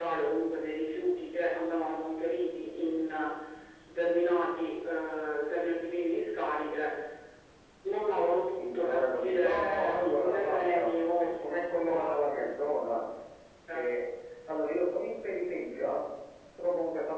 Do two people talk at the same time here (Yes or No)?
Yes